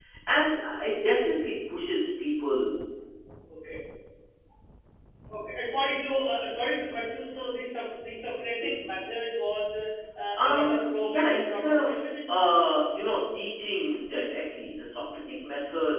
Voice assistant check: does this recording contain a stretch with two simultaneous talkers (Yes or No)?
Yes